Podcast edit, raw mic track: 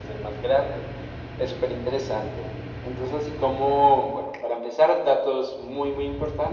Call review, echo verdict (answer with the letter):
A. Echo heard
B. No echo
A